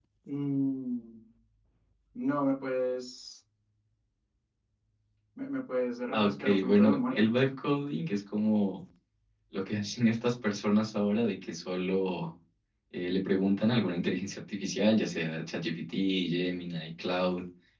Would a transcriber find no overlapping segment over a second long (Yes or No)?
No